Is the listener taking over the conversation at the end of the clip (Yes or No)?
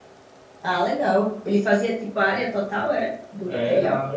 Yes